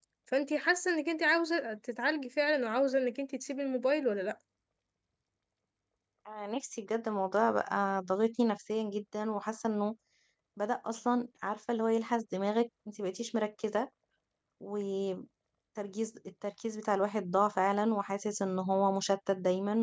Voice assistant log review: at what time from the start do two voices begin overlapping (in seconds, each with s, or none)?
none